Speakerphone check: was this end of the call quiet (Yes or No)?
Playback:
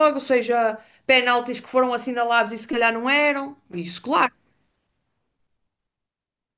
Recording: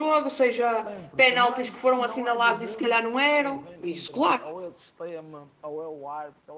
No